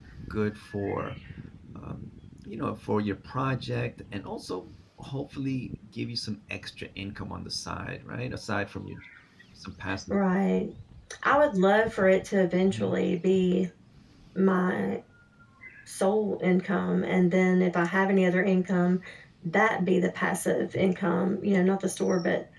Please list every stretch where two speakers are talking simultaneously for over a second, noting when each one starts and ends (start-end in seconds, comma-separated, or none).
none